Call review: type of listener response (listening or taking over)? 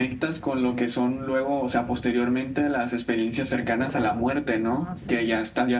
listening